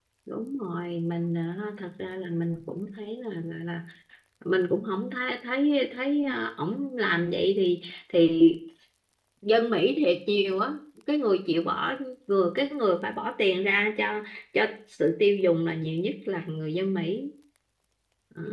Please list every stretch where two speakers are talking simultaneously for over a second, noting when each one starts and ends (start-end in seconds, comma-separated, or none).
none